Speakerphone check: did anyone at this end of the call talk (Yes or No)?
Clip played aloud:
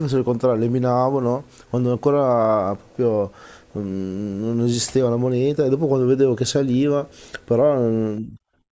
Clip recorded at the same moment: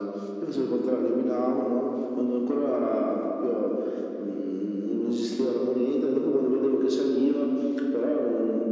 No